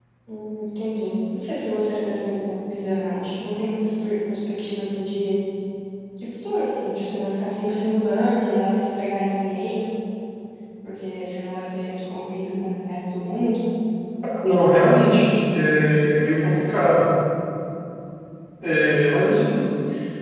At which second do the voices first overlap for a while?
none

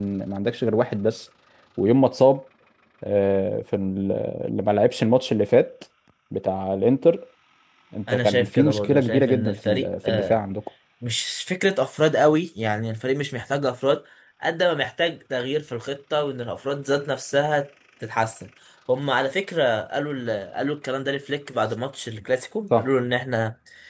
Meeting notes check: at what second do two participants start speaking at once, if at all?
8 s

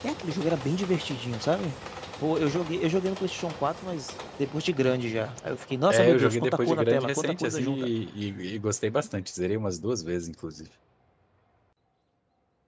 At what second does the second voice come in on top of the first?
6 s

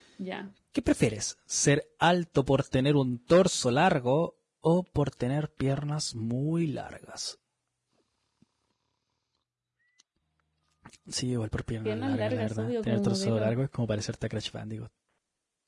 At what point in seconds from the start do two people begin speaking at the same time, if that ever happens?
12 s

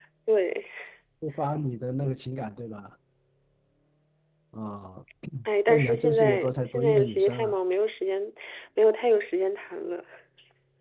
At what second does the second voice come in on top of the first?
6 s

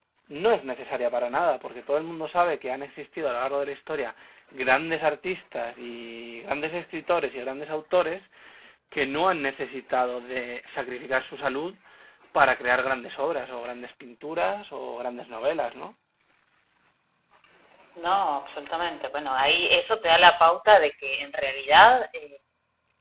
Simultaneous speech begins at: none

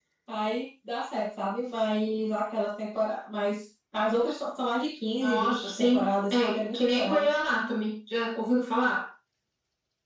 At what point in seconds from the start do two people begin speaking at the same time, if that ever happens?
5 s

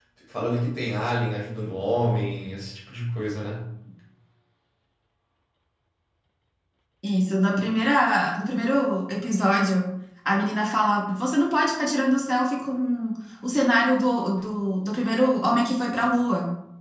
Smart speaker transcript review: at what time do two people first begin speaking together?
none

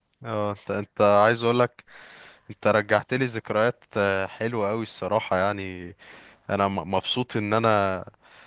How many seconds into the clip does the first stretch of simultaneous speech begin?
none

